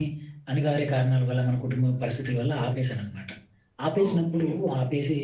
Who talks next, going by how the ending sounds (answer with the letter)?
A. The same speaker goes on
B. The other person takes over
A